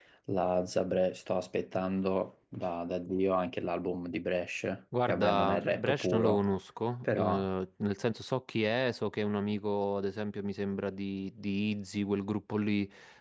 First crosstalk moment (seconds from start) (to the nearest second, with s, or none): 5 s